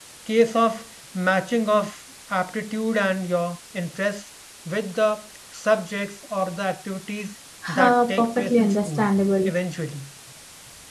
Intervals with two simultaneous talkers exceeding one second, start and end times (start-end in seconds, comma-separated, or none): 7.8-9.0